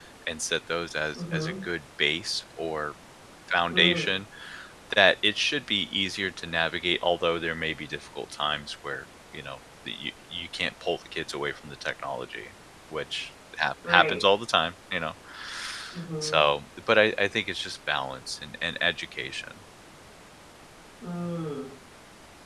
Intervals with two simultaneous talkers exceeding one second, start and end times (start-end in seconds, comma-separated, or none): none